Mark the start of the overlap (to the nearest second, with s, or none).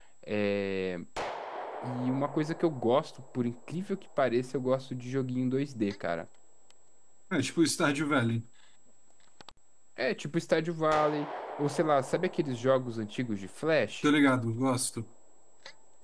none